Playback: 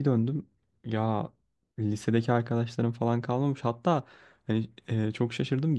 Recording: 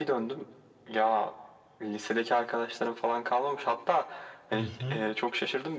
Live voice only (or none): Hı hı.